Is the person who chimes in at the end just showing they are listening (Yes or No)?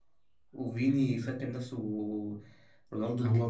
No